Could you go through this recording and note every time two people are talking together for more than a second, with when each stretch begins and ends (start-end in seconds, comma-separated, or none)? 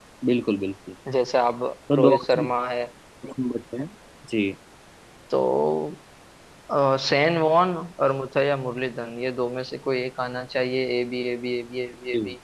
none